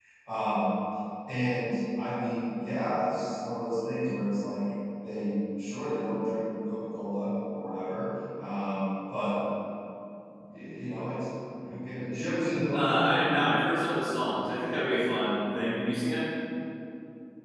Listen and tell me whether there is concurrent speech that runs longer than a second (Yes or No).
No